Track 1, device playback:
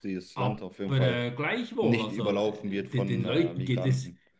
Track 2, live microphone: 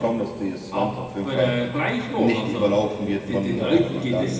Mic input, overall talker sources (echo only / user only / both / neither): both